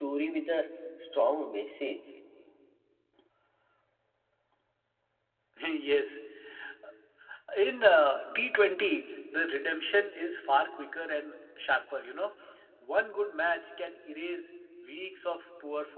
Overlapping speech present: No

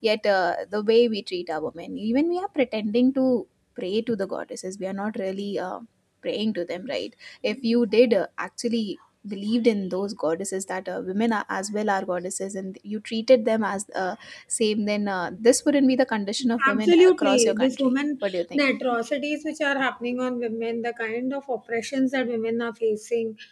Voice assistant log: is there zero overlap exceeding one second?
No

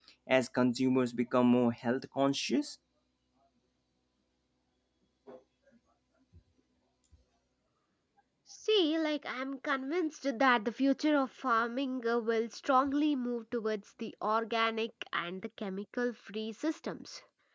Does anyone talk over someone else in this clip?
No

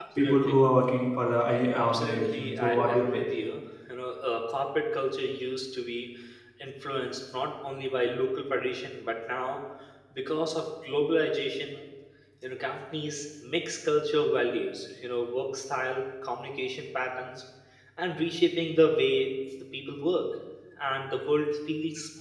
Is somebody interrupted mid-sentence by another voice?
Yes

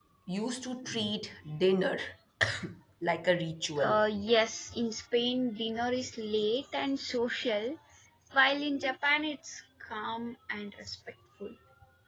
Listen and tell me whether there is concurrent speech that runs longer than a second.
No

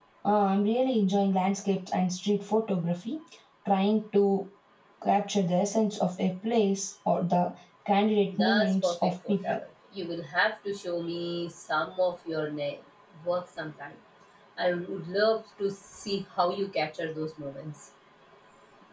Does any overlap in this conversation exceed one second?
Yes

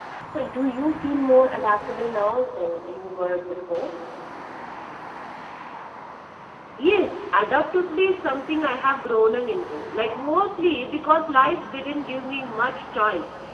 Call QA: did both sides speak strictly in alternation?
Yes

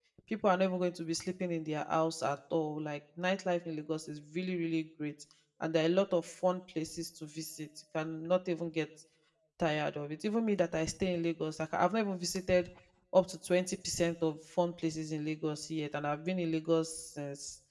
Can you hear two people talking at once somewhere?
No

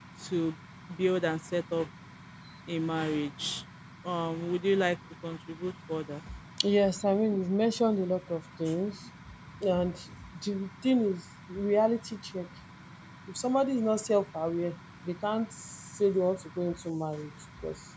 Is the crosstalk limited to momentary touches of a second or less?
Yes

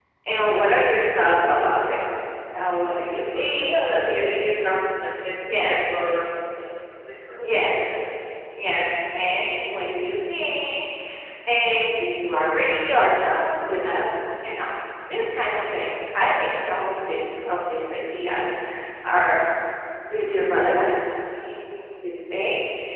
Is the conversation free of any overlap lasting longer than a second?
No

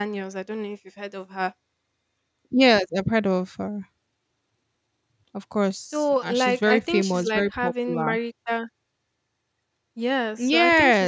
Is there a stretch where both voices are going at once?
Yes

